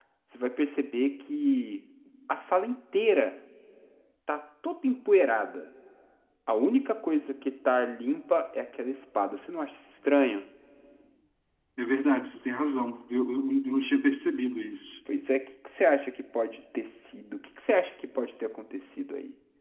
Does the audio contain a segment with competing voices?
No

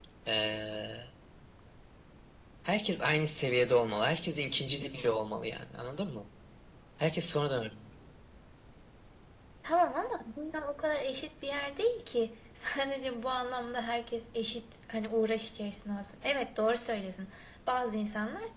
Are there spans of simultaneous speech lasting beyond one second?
No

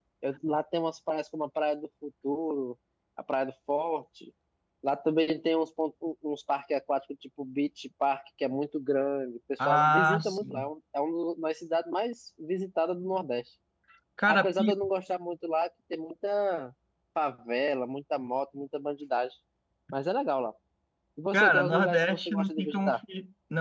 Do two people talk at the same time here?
Yes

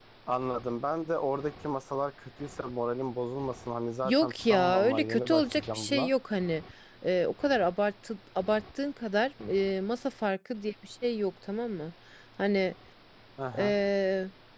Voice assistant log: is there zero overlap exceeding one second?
No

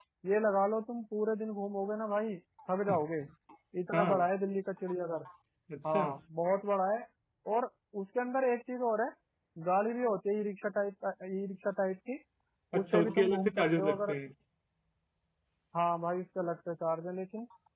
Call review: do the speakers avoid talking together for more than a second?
No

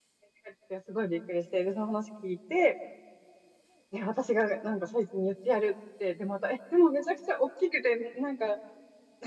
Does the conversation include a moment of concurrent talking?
No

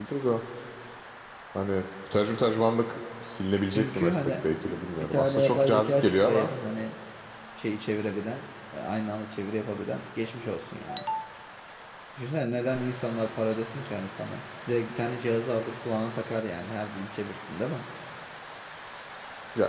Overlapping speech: Yes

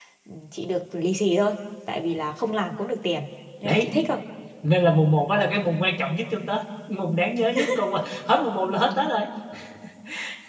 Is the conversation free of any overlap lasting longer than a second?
Yes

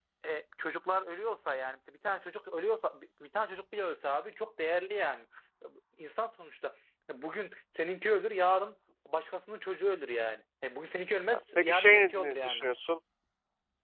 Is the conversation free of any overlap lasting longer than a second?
No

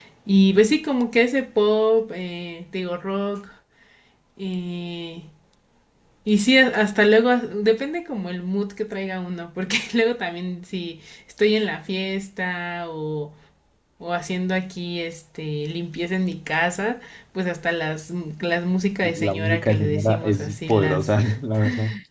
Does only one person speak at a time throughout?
No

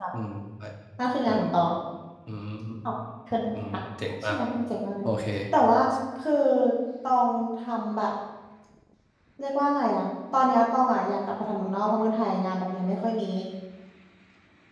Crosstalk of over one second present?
No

